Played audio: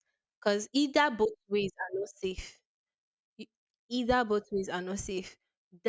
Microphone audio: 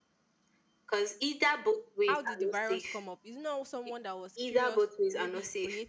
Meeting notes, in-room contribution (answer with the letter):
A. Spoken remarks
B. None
A